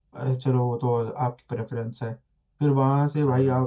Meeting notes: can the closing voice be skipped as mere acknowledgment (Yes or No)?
Yes